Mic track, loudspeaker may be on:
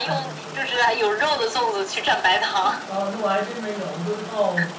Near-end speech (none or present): present